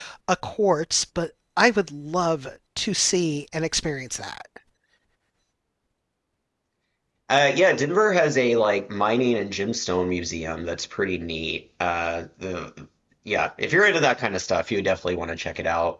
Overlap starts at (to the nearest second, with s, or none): none